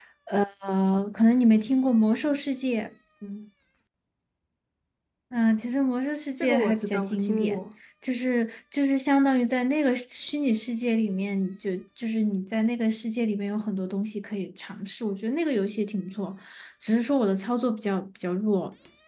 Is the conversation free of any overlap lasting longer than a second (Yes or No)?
No